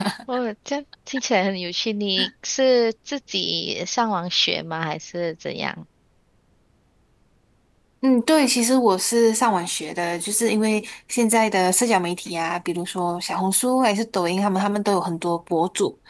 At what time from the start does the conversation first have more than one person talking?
none

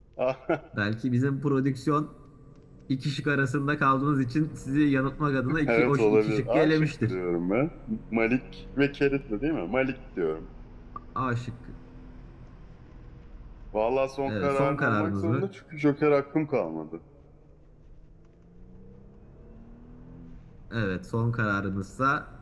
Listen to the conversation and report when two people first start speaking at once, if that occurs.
5.7 s

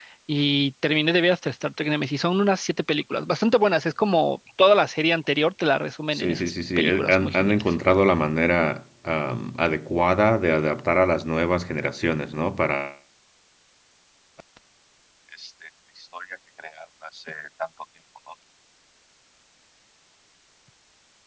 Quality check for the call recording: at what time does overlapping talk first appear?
6.1 s

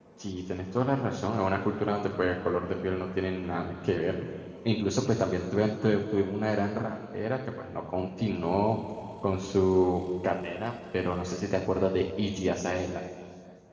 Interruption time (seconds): none

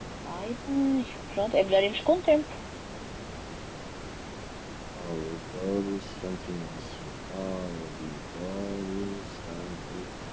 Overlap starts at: none

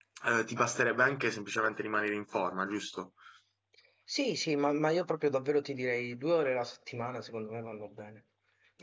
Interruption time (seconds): none

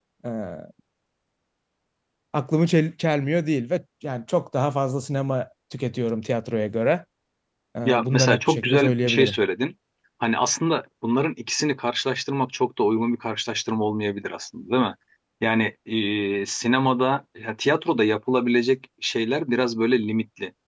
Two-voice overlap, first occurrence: 7.8 s

